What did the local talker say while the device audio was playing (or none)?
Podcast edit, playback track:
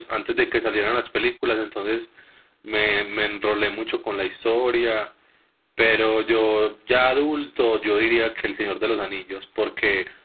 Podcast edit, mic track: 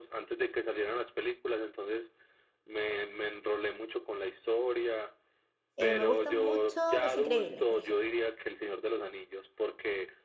Eh, me gustan mucho Los Increíbles, por ejemplo.